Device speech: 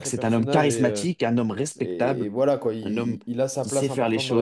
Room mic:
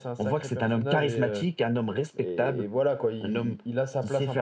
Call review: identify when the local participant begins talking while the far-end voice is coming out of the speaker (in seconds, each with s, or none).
none